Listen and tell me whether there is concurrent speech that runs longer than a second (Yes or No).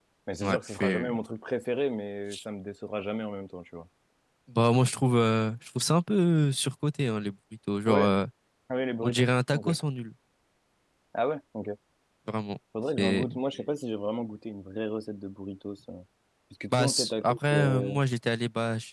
Yes